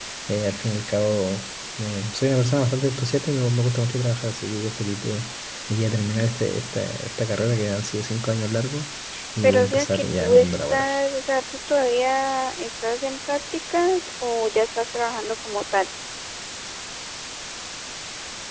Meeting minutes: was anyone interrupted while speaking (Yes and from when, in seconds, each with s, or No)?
Yes, from 9.4 s